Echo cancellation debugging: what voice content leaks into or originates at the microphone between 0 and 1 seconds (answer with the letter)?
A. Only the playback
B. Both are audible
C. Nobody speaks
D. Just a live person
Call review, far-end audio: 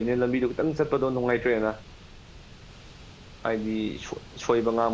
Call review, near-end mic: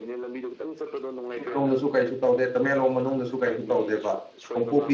A